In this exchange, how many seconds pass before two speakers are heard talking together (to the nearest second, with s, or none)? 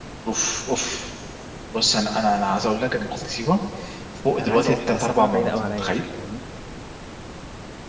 4 s